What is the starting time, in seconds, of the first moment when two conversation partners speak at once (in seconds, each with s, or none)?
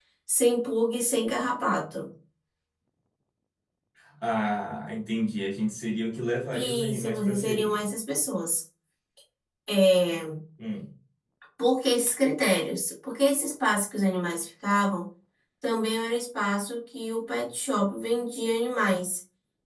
6.5 s